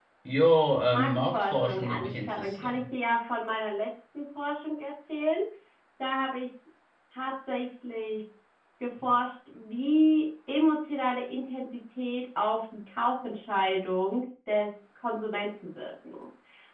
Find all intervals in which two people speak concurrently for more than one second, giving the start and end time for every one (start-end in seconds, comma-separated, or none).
0.9-2.8